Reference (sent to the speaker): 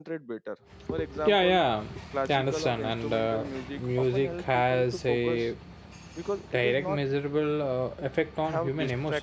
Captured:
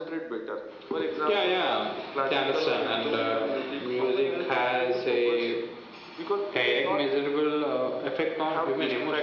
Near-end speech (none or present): none